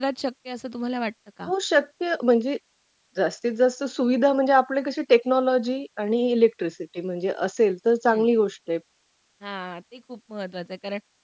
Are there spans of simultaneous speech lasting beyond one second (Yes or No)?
No